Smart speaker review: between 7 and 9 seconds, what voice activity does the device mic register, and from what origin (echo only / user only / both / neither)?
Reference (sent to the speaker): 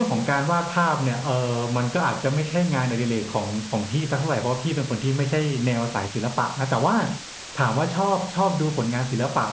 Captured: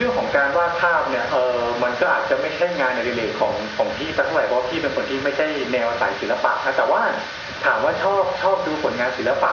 echo only